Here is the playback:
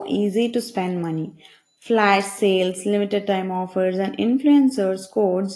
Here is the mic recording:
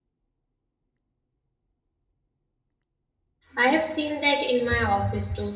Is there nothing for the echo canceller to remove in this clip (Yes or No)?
Yes